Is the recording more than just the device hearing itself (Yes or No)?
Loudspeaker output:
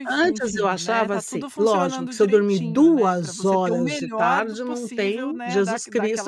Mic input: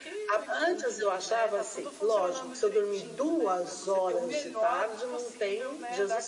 No